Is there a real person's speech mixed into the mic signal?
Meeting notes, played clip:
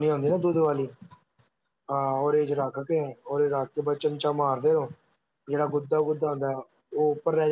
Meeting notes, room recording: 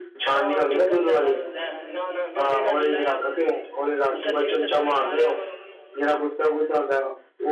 Yes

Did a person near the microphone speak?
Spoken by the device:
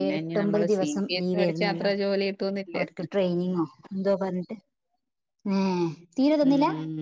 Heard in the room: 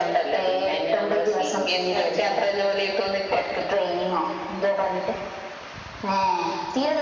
No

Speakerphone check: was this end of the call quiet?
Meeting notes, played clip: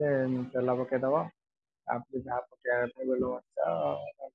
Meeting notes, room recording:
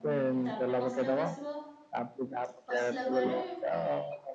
No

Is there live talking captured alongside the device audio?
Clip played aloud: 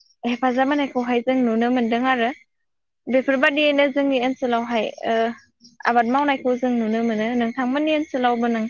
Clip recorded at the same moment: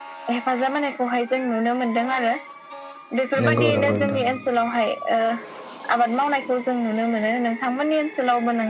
Yes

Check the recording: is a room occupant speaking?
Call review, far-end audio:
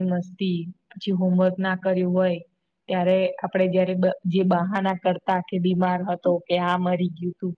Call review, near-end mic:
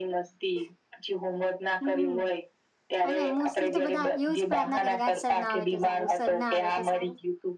Yes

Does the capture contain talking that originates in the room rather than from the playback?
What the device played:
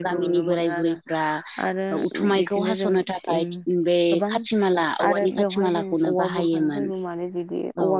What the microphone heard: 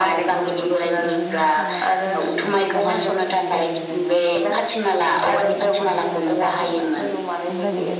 Yes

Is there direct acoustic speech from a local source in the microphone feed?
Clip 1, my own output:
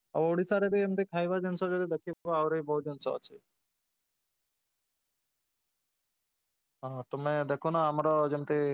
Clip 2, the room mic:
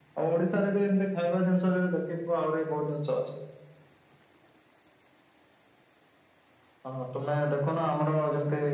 No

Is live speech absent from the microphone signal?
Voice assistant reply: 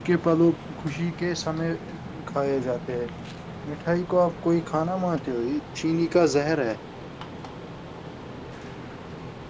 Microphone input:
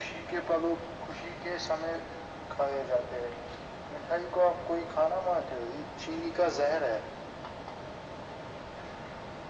Yes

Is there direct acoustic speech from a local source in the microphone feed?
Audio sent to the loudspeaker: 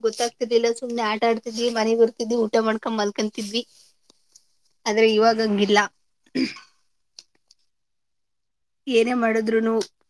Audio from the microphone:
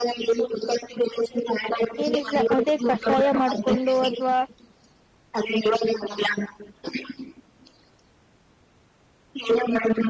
Yes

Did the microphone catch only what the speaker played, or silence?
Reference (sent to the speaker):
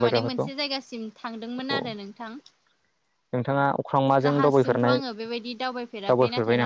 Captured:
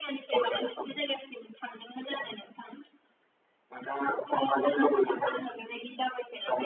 Yes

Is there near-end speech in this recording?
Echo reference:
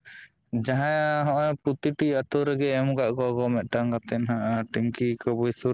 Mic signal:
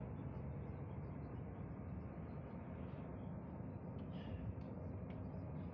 No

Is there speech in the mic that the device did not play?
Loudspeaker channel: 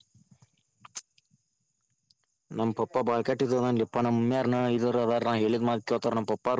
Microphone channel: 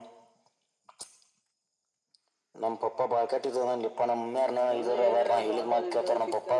Yes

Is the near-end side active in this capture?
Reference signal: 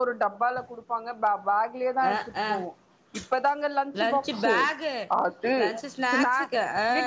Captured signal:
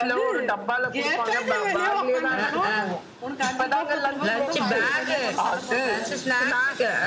Yes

